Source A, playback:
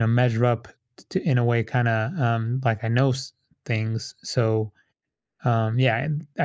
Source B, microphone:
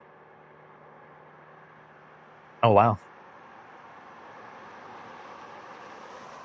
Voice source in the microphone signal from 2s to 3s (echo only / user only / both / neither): user only